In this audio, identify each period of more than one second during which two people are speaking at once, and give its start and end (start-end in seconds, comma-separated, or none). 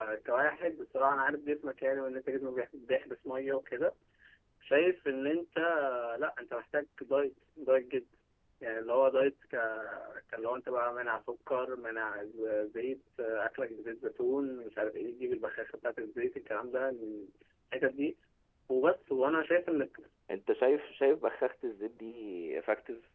none